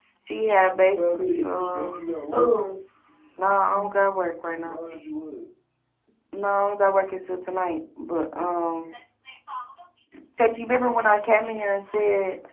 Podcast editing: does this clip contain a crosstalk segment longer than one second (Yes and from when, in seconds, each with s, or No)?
Yes, from 0.8 s